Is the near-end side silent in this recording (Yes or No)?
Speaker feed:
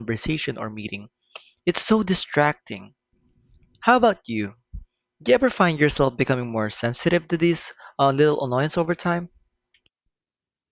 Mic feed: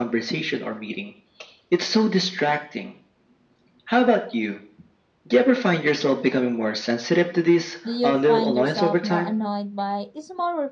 No